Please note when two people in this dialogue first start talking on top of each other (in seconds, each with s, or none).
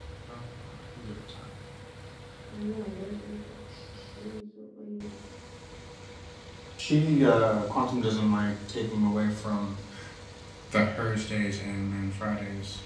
none